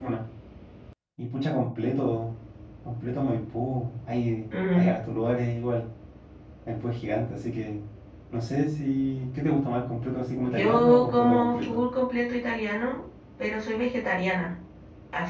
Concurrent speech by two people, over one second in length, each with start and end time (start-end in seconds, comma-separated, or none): 10.5-11.8